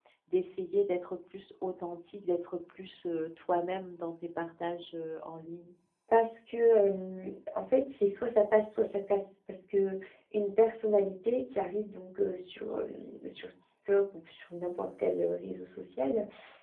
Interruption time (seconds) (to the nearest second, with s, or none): none